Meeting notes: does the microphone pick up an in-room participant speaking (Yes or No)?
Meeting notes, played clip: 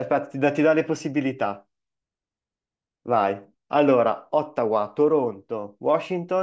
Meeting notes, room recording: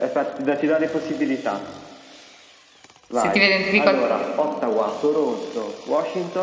Yes